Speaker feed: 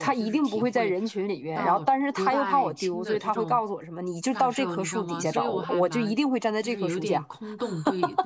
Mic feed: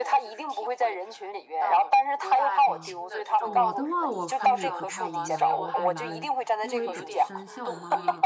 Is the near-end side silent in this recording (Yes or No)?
No